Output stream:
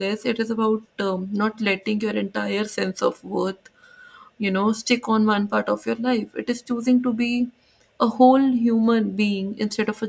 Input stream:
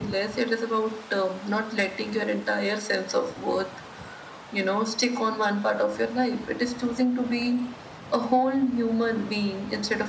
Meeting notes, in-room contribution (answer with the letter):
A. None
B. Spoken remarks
A